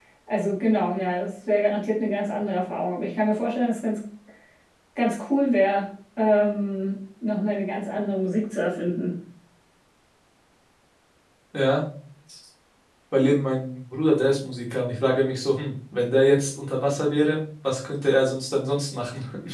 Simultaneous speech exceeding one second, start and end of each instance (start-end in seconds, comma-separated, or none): none